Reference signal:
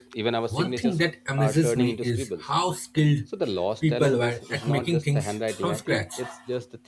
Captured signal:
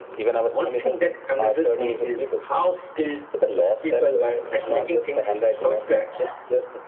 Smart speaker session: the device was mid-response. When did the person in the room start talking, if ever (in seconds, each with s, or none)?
none